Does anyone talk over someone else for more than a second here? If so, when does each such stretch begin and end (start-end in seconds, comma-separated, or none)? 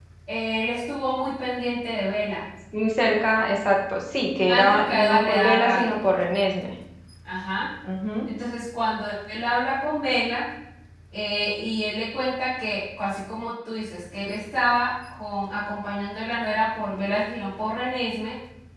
4.5-5.9